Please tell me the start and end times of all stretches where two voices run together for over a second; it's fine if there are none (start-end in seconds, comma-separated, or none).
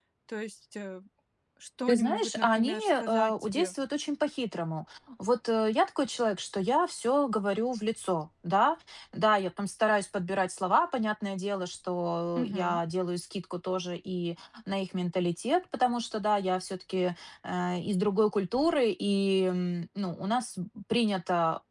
1.9-3.7